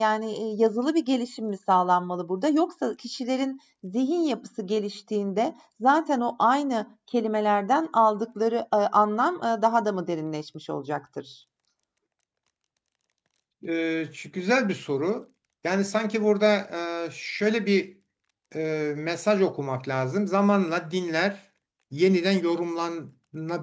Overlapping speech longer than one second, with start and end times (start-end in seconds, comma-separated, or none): none